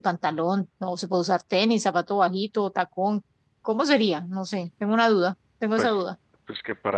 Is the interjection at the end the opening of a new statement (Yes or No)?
Yes